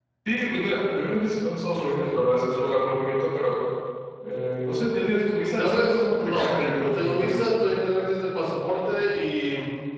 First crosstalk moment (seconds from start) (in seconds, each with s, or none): 5.6 s